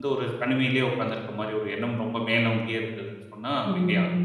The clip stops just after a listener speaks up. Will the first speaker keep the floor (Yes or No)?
No